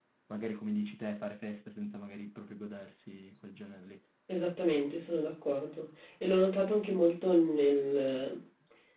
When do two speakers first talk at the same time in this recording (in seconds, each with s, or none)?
none